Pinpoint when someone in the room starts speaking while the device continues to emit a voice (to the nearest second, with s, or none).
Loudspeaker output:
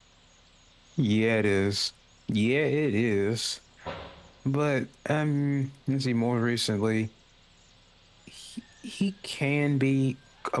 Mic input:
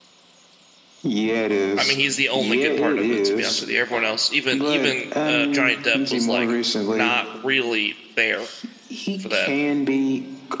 2 s